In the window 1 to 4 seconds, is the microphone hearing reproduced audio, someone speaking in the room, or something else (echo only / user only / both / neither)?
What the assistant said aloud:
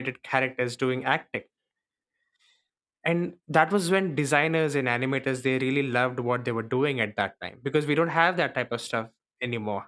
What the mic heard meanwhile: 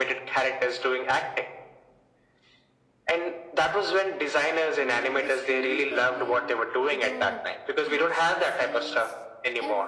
echo only